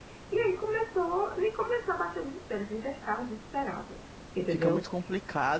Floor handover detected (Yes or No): Yes